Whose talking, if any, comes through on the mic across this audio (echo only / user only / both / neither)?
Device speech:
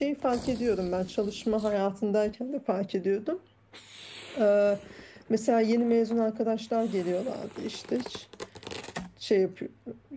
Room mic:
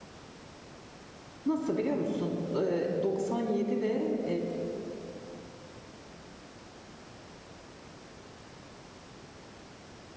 user only